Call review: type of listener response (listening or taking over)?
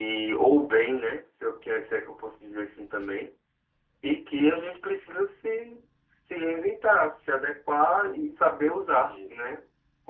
listening